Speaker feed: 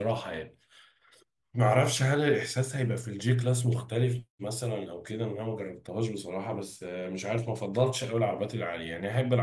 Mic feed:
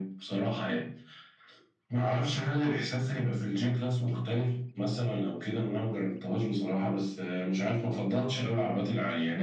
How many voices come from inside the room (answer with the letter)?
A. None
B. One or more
A